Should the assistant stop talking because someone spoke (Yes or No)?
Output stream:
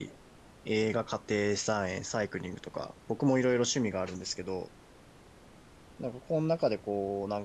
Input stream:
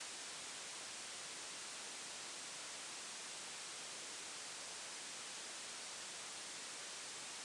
No